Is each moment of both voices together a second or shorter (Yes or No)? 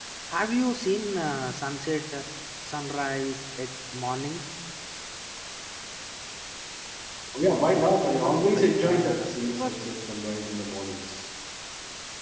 No